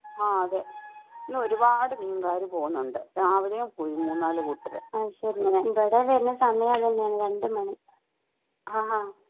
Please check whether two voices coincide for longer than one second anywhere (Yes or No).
No